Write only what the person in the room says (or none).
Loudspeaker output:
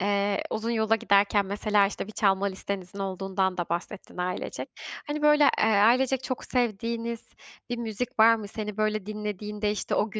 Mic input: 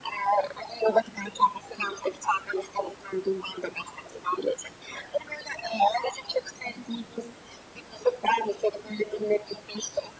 none